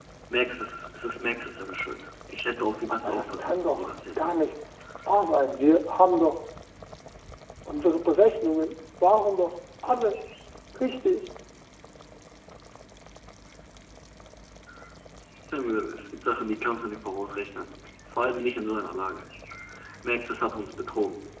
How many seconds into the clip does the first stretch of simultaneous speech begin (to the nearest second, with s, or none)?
3 s